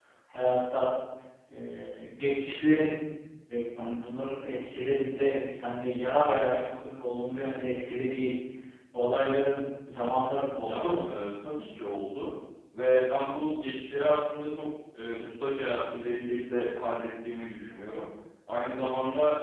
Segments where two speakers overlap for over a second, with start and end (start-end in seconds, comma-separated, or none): none